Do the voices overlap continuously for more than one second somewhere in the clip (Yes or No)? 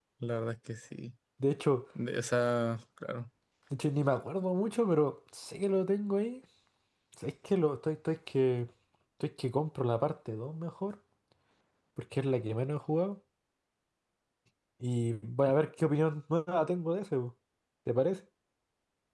No